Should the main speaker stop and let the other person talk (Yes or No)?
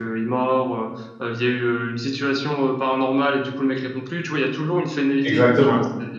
Yes